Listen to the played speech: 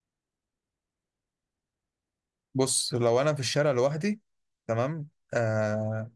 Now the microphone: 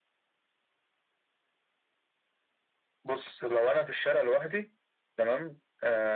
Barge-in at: none

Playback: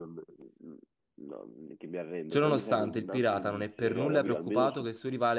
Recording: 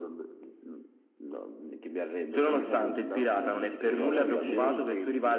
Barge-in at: 3.2 s

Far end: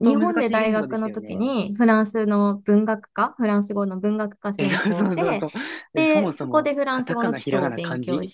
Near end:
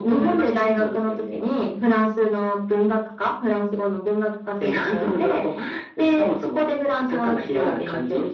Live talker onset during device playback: none

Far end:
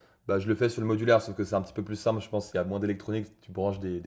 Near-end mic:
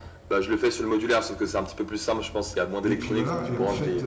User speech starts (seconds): 2.8 s

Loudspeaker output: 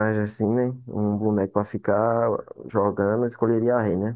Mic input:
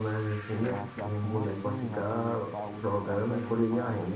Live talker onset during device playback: 0.6 s

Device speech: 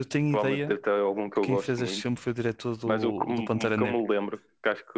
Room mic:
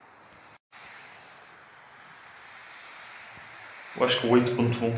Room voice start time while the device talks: 4.0 s

